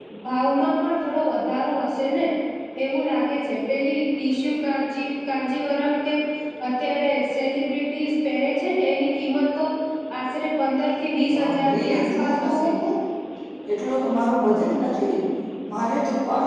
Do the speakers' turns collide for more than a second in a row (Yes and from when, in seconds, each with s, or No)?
Yes, from 11.3 s